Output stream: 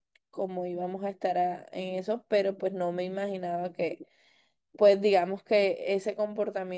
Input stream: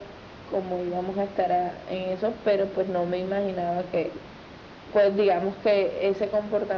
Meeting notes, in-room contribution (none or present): none